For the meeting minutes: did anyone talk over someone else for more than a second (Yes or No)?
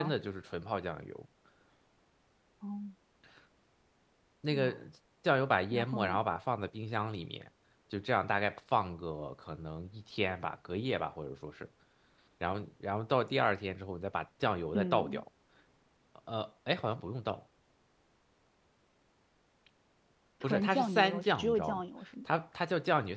Yes